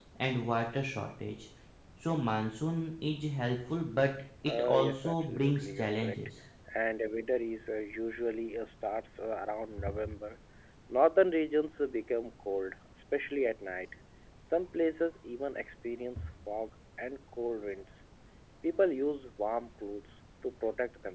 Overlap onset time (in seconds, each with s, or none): 4.5 s